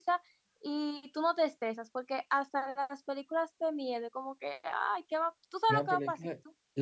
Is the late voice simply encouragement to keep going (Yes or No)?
No